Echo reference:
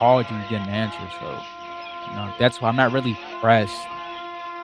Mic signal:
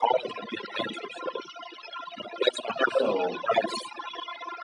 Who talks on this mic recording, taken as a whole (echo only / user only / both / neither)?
both